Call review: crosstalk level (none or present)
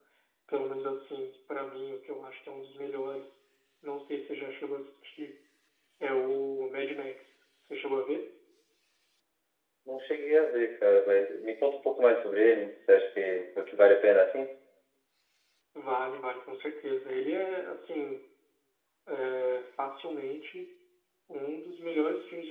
none